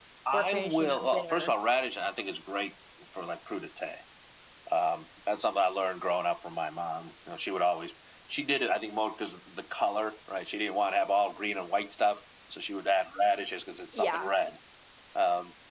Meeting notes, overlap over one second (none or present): present